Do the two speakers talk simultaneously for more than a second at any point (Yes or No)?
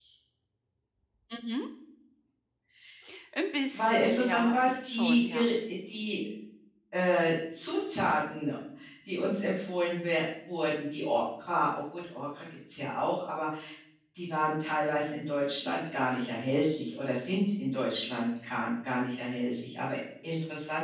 Yes